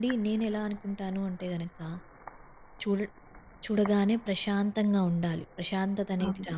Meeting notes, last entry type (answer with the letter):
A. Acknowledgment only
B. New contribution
A